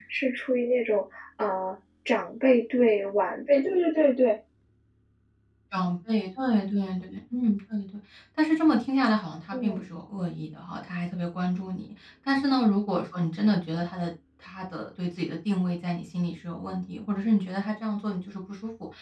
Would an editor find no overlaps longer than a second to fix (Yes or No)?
Yes